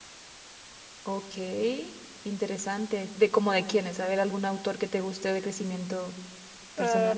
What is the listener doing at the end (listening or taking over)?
taking over